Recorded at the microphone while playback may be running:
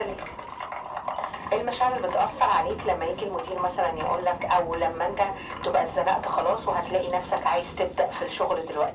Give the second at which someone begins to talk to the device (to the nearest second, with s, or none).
none